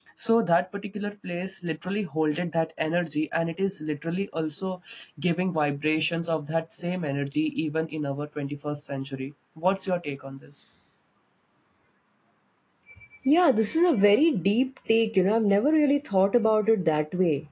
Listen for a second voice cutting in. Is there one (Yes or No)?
No